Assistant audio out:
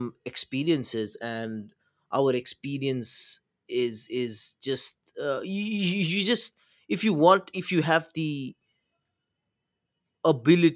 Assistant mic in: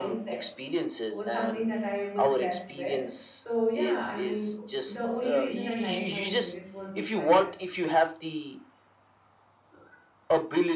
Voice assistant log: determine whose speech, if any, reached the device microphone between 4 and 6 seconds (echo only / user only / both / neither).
both